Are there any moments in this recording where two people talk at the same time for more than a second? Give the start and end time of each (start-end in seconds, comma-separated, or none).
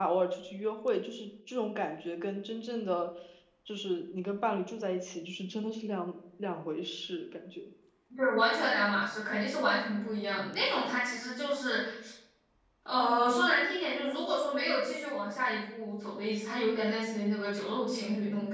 none